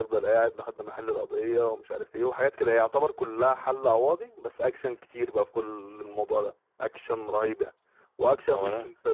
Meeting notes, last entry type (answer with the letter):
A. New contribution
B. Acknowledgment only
B